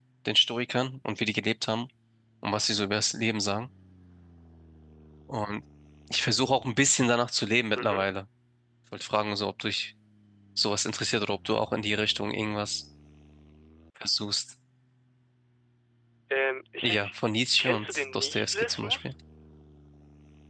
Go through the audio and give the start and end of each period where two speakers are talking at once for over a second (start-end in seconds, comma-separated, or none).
17.6-19.1